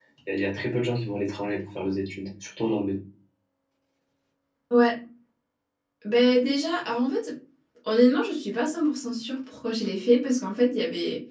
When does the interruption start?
none

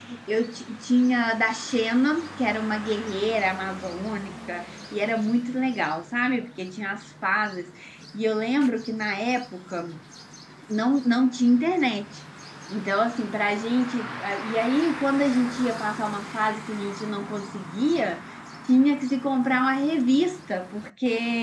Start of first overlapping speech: none

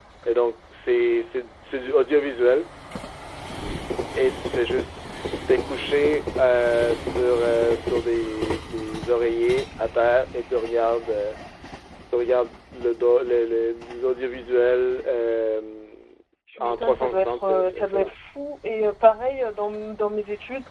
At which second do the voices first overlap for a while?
17 s

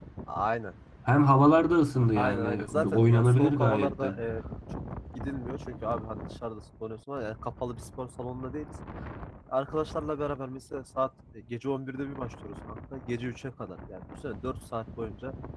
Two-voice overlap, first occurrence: 2 s

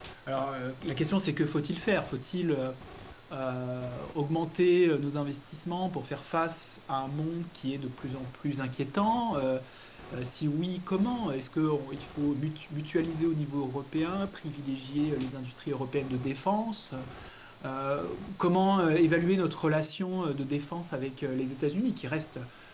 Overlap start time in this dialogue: none

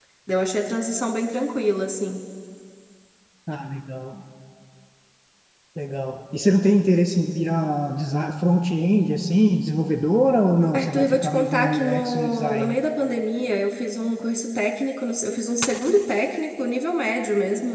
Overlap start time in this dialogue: 11 s

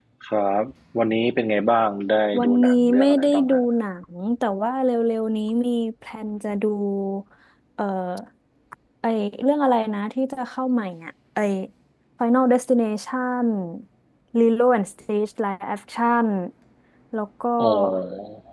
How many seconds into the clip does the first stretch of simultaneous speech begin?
2 s

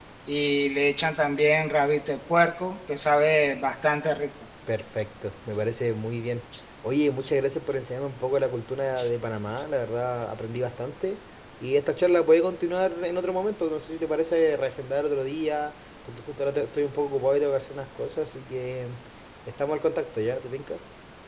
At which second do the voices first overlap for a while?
none

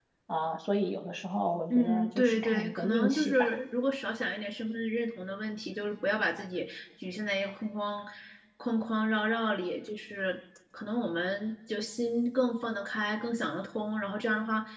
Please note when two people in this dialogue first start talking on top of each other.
2 s

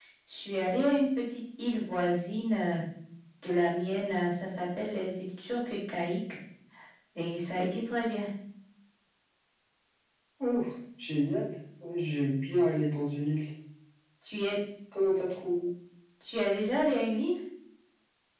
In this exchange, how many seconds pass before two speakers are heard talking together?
none

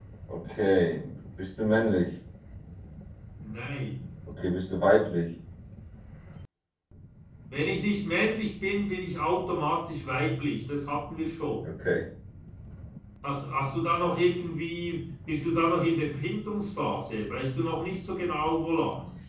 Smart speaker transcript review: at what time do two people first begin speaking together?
none

